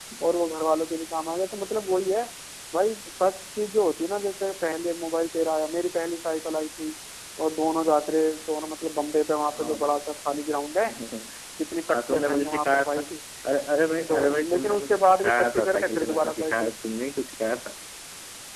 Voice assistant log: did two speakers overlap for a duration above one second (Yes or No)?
Yes